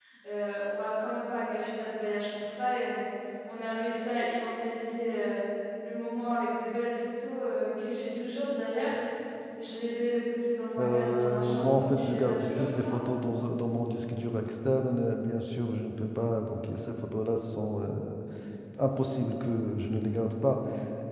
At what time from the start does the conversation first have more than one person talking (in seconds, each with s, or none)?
10.8 s